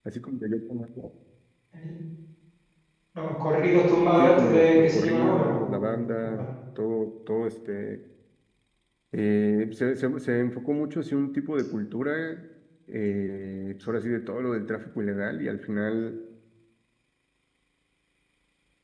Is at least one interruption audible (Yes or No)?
Yes